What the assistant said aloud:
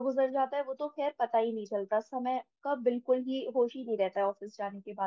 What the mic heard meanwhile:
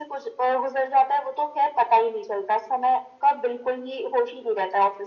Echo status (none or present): present